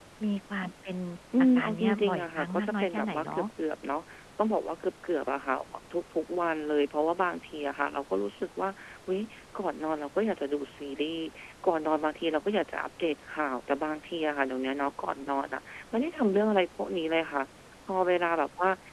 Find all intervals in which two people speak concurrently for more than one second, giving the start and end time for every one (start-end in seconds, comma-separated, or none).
1.6-3.4